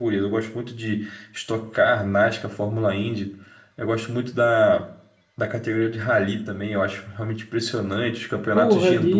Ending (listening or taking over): taking over